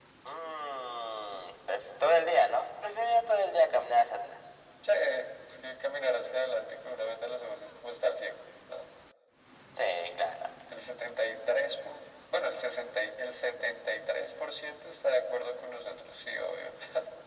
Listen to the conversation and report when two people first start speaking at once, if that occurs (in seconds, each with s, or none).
none